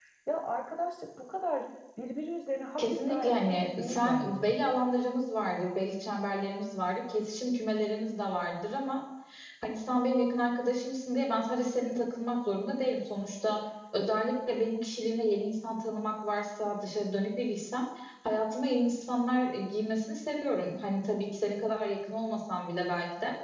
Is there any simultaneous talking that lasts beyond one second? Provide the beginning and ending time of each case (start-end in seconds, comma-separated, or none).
2.8-4.5